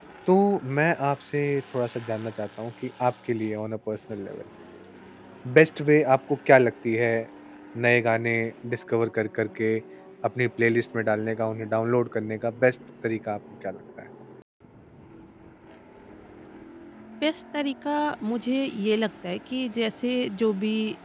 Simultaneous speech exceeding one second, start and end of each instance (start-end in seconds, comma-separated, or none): none